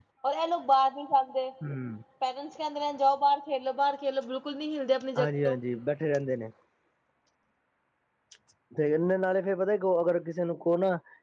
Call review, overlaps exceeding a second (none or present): none